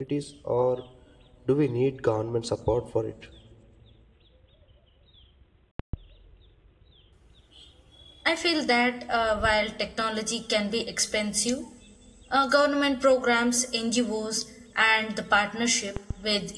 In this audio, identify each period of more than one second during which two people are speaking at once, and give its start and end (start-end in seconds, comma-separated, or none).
none